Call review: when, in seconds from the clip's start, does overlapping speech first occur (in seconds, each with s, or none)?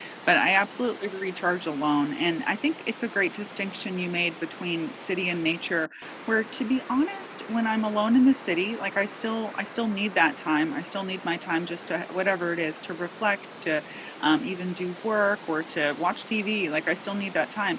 none